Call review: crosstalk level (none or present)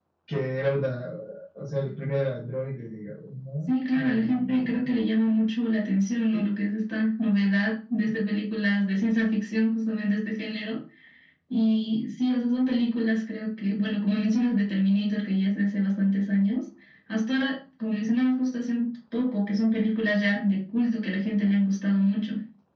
present